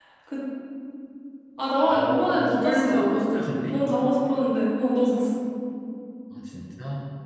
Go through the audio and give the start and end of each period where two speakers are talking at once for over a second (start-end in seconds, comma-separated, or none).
1.9-3.2